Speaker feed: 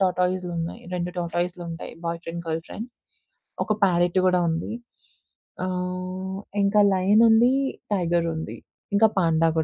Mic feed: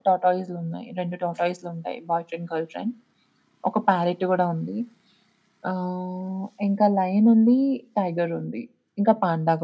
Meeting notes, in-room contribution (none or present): none